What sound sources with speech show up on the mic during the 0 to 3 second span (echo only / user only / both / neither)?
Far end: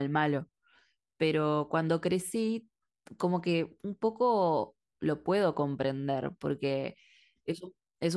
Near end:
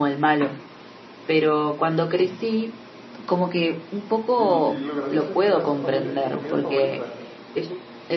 echo only